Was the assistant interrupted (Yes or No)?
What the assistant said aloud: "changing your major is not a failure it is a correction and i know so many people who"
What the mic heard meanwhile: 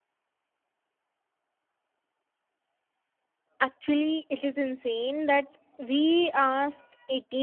Yes